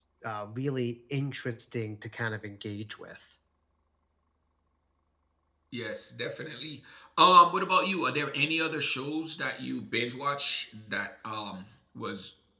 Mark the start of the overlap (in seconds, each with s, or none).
none